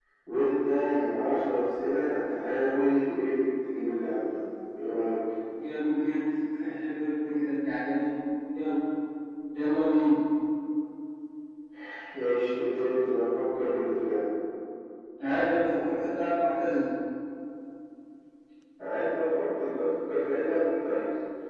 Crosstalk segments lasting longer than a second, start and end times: none

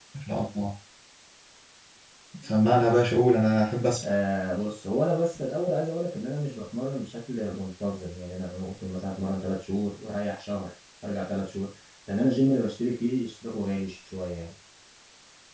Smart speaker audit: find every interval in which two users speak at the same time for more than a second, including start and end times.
none

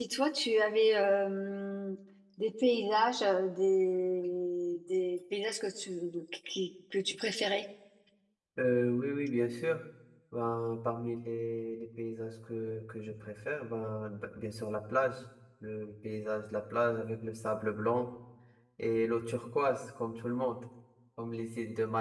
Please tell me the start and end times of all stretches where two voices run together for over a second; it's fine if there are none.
none

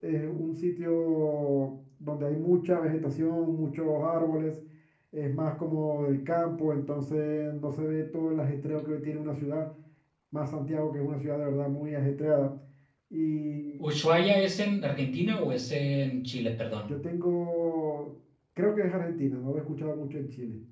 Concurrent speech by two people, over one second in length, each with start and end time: none

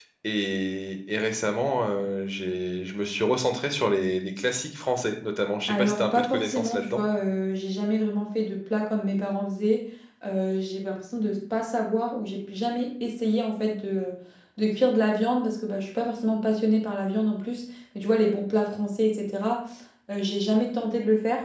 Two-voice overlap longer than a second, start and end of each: 5.7-7.0

